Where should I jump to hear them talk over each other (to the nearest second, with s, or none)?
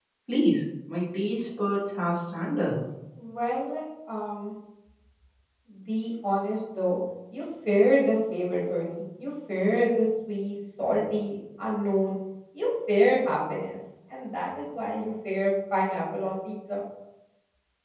none